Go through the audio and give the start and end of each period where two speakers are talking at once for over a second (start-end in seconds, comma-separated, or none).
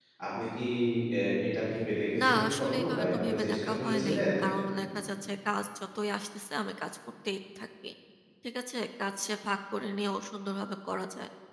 2.2-4.2